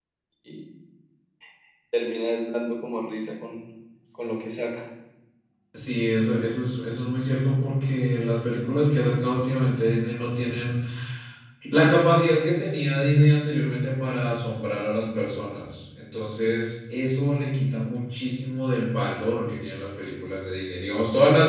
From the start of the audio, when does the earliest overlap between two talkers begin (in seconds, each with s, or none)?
none